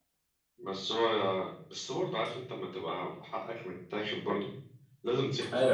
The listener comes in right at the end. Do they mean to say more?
Yes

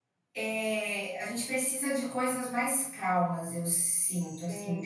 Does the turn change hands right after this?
Yes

